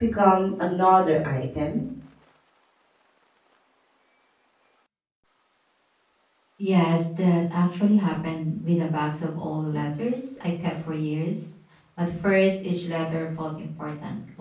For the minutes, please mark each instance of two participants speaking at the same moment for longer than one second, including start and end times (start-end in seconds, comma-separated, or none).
none